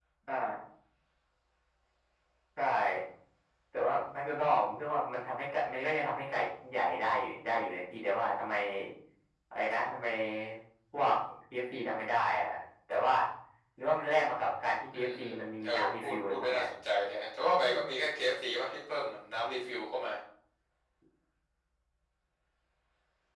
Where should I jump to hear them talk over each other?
15 s

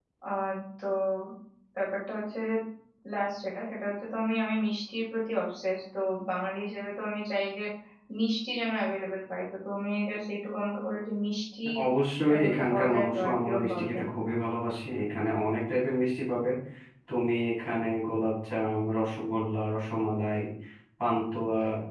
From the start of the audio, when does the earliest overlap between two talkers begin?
12 s

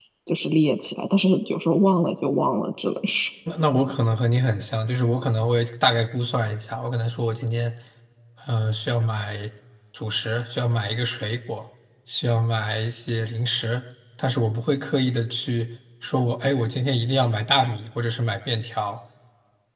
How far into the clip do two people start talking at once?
none

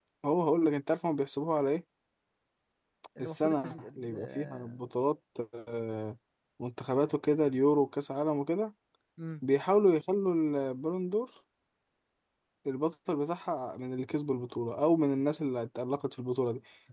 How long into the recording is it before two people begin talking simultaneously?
3 s

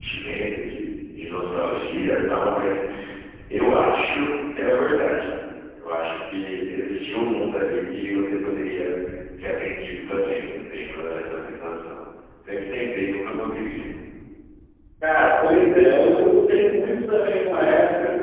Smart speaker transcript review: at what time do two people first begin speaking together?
none

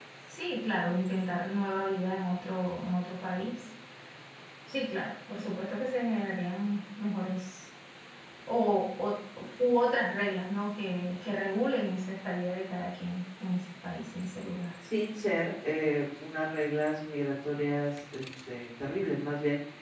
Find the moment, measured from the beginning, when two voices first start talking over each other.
none

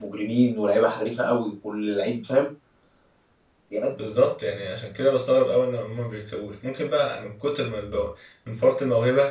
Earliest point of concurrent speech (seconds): none

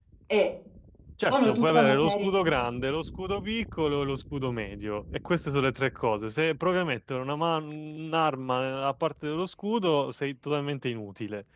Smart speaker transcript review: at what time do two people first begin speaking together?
1 s

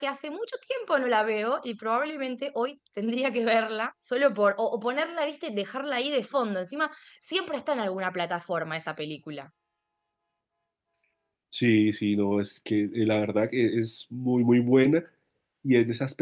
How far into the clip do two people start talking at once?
none

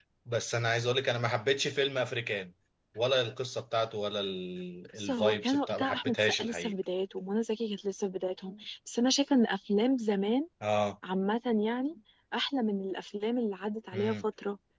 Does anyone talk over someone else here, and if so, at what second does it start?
5 s

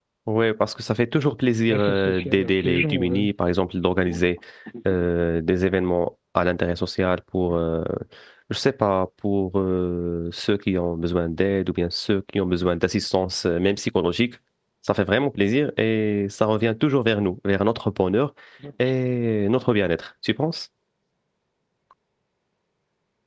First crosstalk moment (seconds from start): 2 s

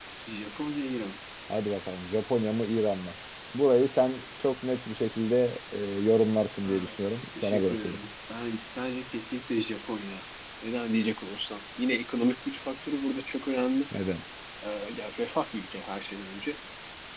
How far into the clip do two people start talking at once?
7 s

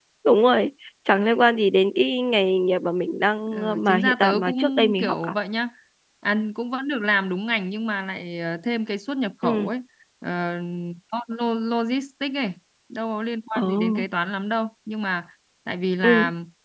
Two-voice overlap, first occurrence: 4 s

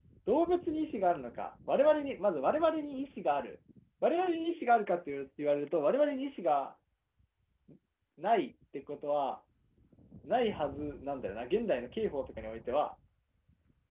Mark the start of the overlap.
none

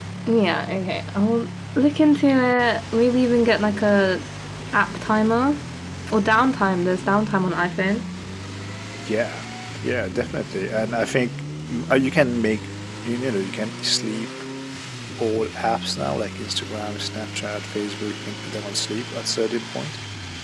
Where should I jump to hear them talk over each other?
none

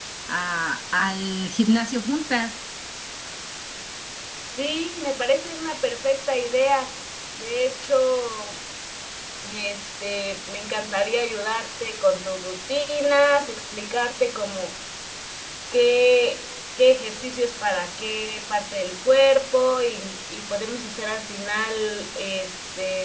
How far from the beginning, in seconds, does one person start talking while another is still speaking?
none

